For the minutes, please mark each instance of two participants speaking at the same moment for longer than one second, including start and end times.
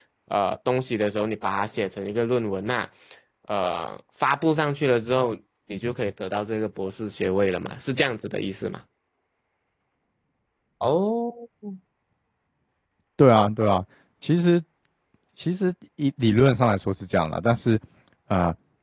none

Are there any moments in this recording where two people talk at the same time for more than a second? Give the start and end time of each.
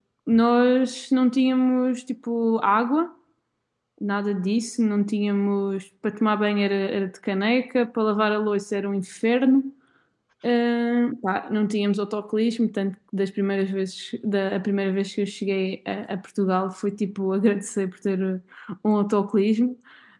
none

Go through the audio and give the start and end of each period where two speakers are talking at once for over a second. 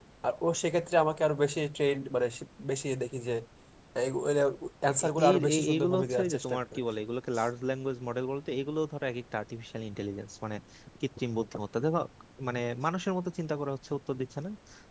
5.0-6.8

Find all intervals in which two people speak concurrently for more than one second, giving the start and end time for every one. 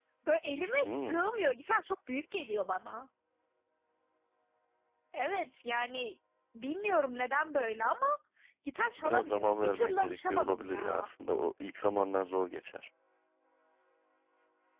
9.0-11.1

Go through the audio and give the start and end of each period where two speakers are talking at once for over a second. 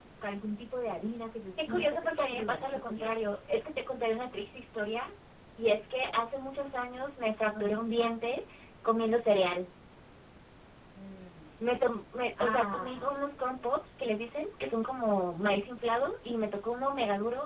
1.7-3.1, 12.4-13.8

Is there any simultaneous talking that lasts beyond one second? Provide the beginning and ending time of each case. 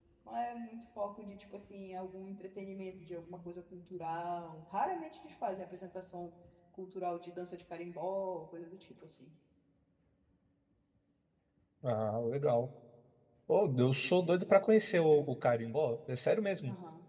none

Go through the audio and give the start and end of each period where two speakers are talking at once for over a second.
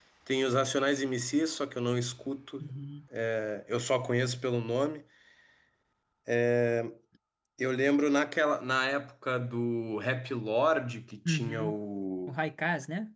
none

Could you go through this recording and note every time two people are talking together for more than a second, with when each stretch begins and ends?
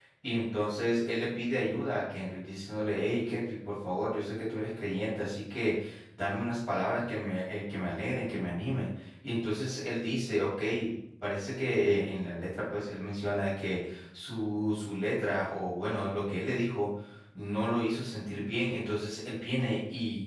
none

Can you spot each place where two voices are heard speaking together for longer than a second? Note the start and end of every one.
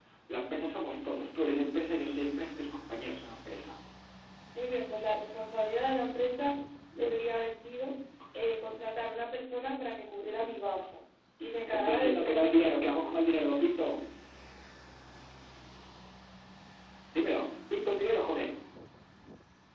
11.7-13.1

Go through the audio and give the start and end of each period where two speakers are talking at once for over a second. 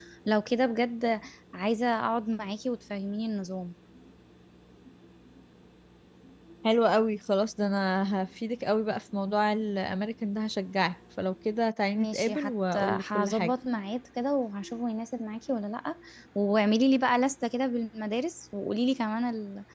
11.9-13.5

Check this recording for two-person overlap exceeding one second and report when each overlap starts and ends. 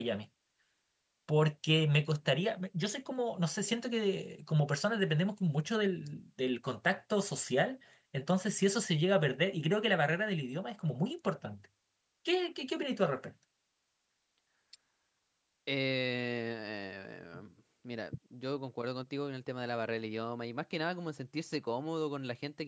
none

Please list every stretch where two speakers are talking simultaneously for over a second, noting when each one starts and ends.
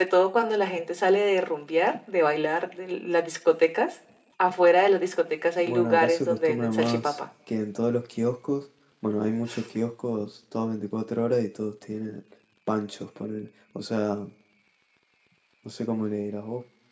5.6-7.2

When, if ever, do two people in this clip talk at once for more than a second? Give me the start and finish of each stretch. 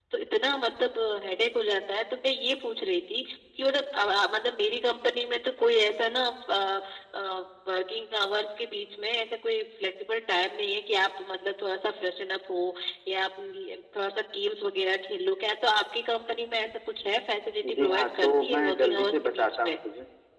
17.8-19.8

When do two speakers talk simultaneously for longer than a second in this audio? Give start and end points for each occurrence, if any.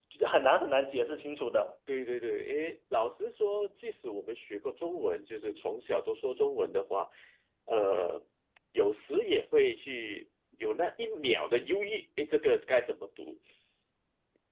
none

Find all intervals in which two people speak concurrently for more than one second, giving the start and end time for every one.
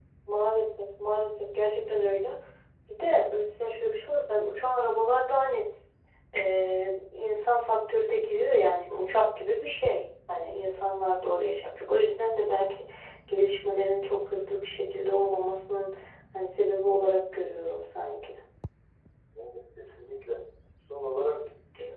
none

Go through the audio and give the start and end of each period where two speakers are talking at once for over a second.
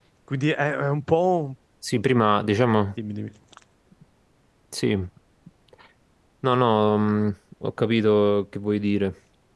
none

